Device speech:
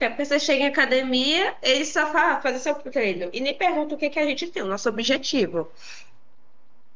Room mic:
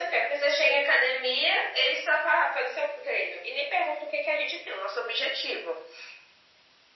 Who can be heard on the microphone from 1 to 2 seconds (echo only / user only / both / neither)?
echo only